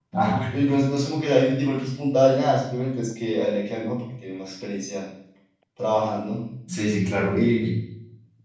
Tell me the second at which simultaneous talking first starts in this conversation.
none

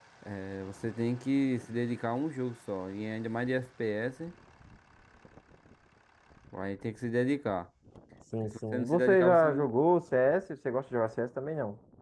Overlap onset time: 8.4 s

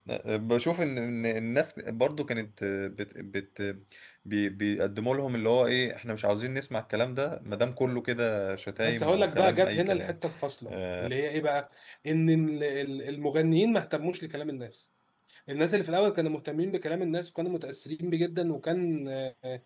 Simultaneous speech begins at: 8.8 s

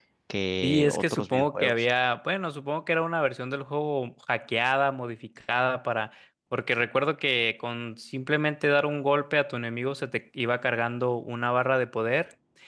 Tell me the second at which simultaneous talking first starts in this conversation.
0.6 s

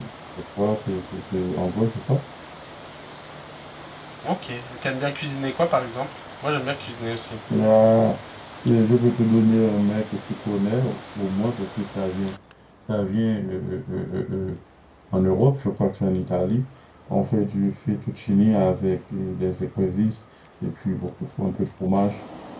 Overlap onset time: none

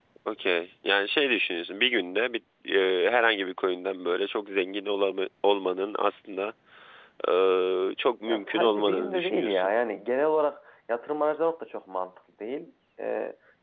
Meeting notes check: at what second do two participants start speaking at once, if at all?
8.3 s

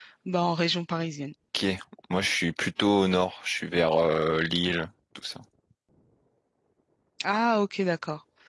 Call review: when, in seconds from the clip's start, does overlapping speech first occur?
none

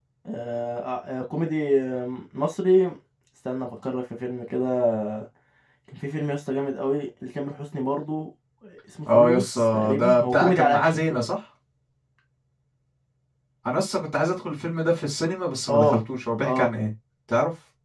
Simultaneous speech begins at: 9.1 s

